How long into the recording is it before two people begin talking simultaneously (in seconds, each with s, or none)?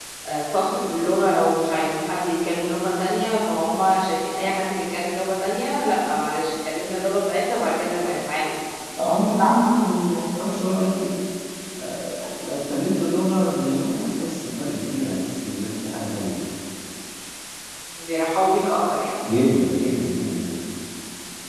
none